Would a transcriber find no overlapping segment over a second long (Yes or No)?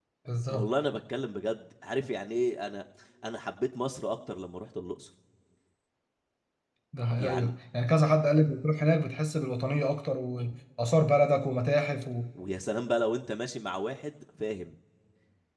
Yes